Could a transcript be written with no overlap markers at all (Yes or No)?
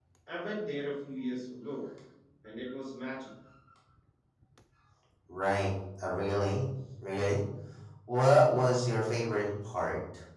Yes